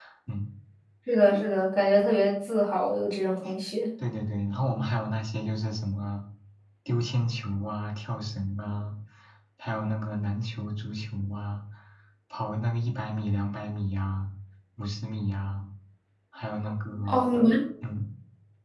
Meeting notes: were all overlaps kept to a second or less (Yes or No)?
Yes